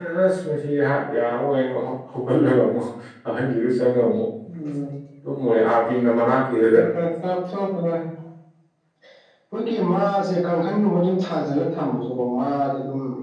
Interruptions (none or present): none